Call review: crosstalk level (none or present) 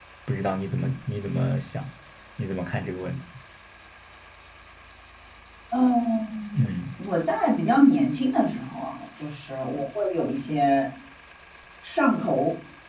none